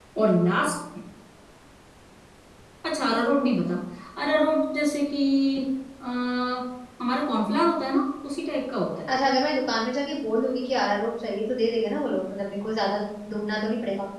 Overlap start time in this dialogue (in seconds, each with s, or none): none